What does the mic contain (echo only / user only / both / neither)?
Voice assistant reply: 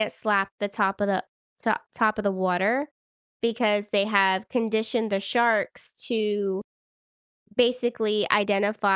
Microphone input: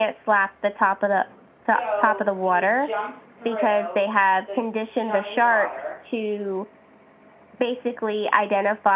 both